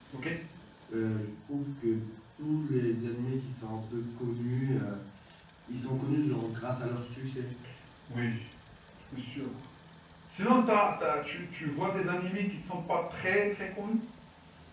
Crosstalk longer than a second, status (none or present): none